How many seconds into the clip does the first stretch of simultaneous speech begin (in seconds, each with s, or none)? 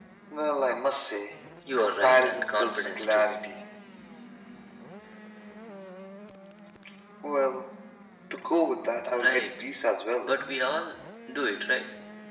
1.8 s